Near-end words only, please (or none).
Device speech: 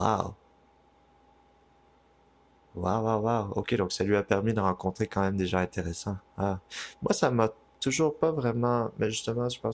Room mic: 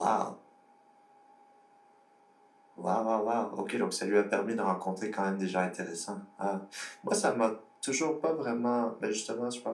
none